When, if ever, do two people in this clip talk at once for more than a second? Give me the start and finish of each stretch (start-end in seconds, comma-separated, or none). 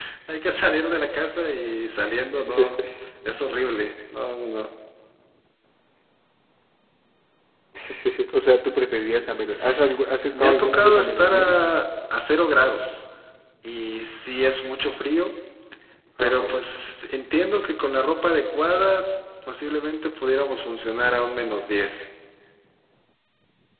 10.3-11.6